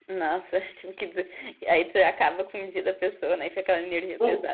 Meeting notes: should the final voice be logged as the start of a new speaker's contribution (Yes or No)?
Yes